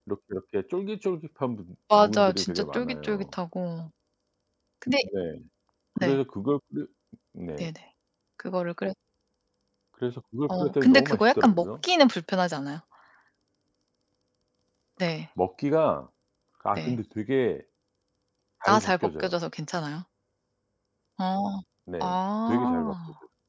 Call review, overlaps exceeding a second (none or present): present